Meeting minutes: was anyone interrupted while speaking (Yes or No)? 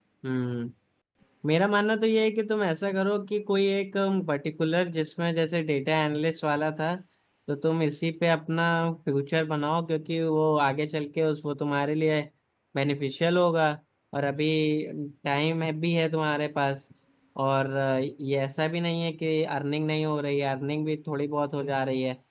No